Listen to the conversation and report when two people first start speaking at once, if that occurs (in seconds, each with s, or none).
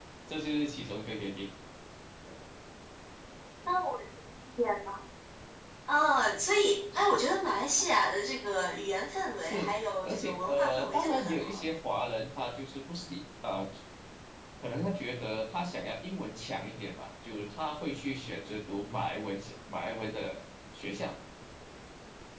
9.4 s